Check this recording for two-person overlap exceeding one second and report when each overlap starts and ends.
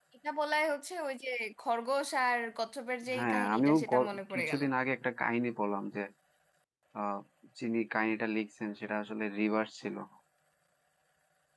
3.1-4.6

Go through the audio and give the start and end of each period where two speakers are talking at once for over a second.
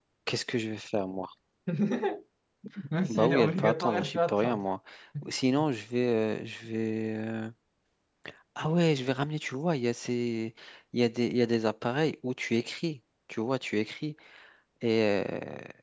3.1-4.7

